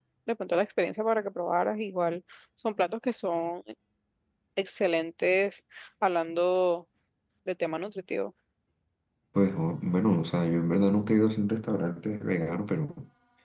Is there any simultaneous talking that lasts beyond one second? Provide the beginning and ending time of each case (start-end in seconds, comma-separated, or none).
none